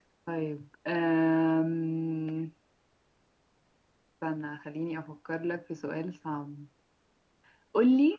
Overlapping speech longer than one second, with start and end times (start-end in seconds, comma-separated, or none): none